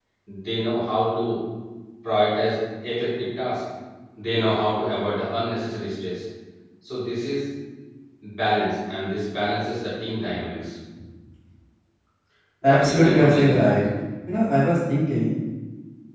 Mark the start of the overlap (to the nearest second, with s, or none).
13 s